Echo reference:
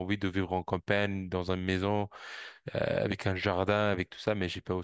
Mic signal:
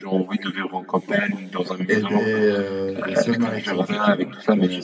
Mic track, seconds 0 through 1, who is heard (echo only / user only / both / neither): echo only